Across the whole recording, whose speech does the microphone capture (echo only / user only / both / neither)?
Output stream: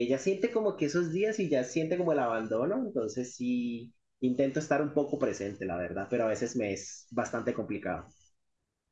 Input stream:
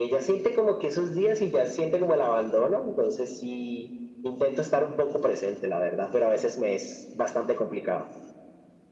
echo only